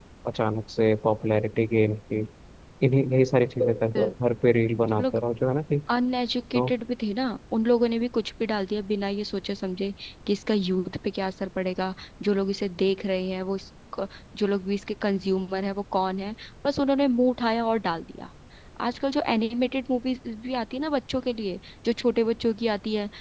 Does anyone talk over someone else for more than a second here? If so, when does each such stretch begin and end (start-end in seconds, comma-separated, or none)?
none